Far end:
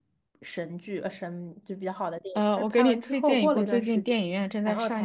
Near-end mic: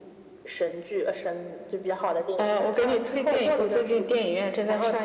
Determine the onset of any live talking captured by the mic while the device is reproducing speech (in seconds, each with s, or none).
none